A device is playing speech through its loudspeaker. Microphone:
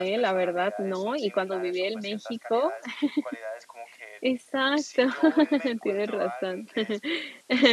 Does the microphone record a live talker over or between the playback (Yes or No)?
Yes